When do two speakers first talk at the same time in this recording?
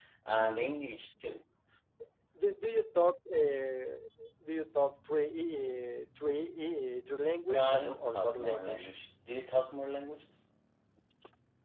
7.5 s

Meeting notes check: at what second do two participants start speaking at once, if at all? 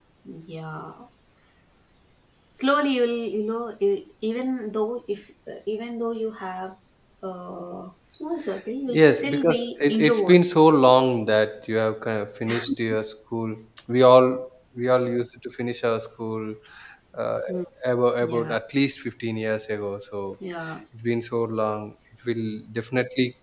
9.0 s

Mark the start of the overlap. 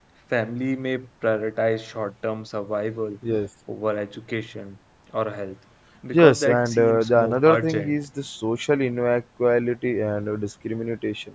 6.1 s

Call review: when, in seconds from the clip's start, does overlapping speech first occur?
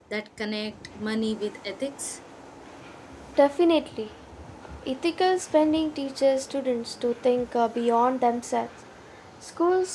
none

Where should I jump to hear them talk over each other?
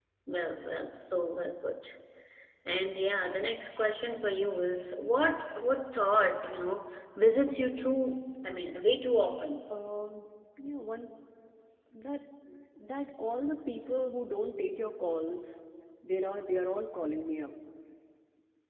none

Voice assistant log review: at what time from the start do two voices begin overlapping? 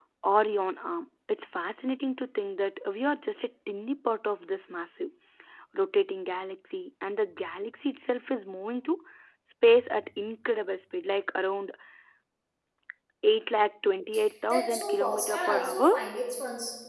14.5 s

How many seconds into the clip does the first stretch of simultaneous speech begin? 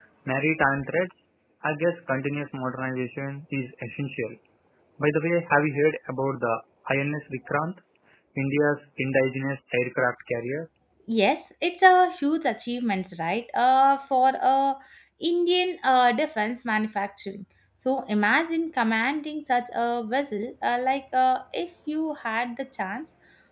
none

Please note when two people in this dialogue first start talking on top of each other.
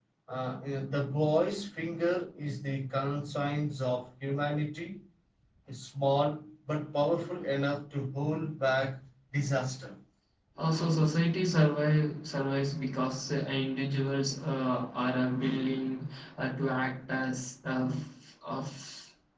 none

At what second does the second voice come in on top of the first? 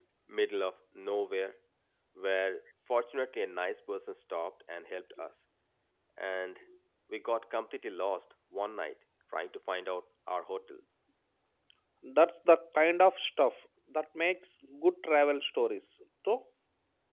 none

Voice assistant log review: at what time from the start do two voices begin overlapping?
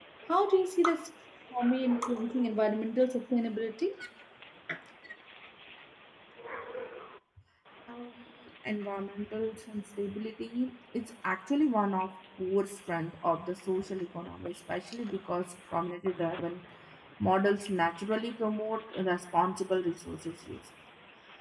none

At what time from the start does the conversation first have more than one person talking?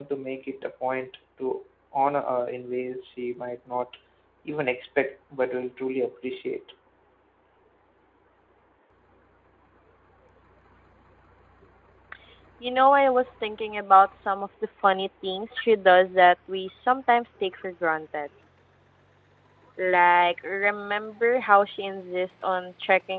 none

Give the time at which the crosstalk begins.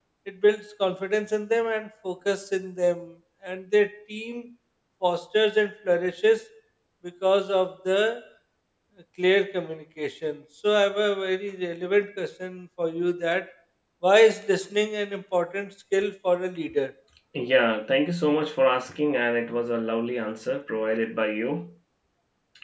none

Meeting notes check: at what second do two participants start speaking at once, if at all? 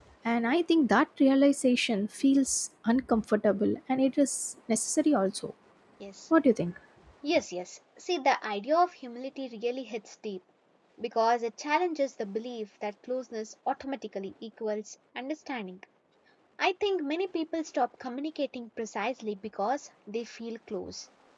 none

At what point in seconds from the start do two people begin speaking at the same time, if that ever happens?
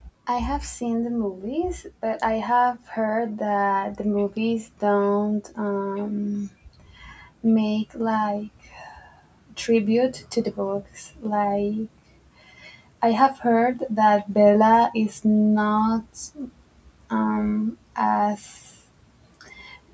none

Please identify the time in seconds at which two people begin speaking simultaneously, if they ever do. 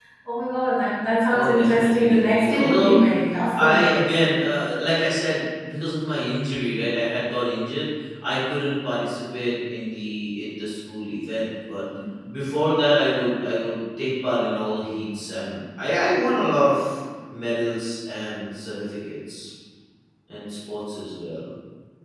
1.3 s

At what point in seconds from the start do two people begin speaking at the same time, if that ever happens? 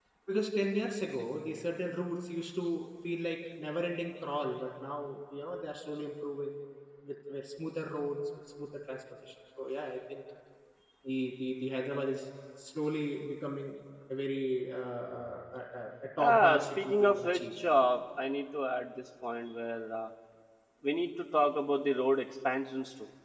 16.2 s

